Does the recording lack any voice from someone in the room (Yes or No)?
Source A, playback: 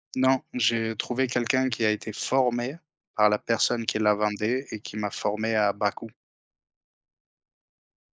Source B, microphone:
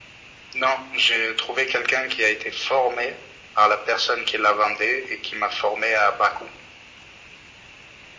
Yes